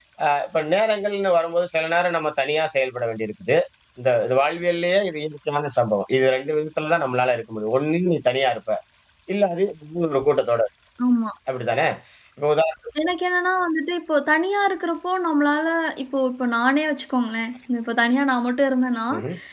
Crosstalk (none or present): none